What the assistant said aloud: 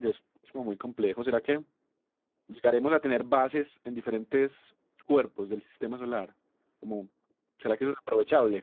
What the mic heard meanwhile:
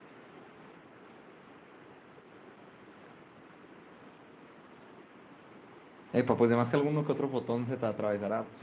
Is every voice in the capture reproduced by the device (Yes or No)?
No